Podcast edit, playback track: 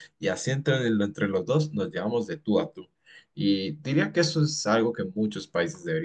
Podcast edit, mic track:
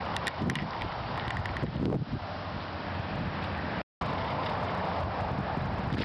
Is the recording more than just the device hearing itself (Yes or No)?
No